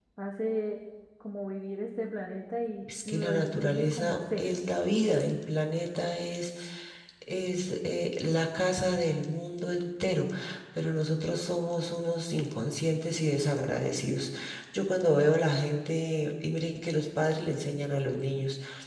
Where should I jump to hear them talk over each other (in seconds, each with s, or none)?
2.8 s